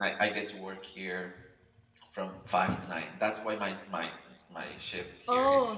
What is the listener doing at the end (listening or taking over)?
taking over